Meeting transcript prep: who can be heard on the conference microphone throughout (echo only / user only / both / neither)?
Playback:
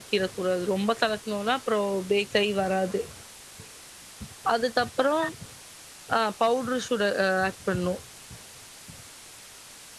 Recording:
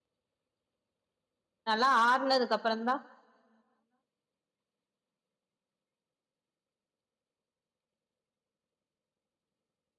user only